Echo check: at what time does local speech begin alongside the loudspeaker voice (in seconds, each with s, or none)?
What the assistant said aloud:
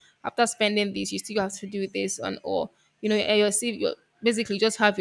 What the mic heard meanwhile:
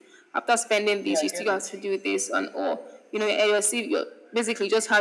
1.0 s